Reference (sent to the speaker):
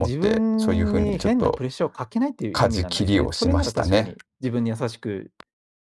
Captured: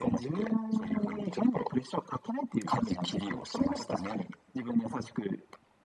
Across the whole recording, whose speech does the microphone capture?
echo only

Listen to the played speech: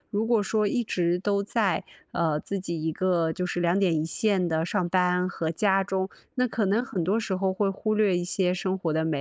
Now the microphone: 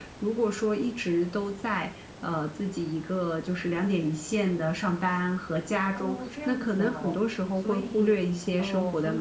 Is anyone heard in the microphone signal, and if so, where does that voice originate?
both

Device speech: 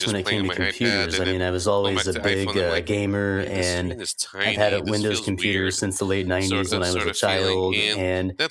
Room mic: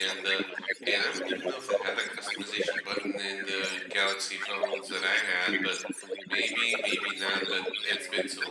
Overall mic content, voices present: both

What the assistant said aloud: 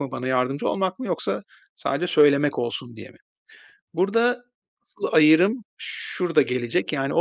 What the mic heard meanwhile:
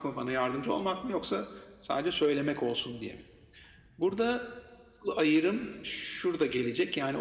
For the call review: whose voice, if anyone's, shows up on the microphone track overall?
echo only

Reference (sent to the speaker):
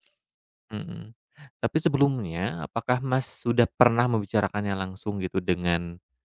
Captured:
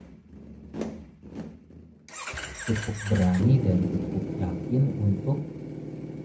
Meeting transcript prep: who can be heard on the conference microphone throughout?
user only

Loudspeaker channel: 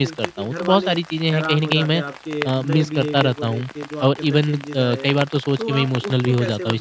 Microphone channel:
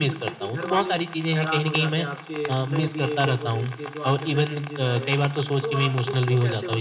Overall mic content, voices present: echo only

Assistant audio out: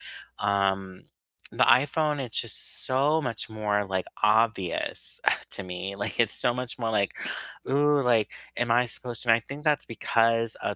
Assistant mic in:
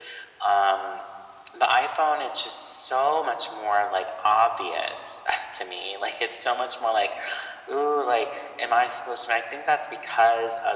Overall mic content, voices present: echo only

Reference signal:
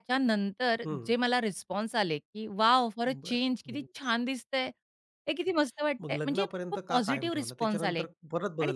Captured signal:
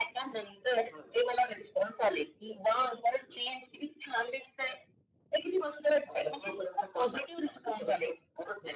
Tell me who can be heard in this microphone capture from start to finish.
echo only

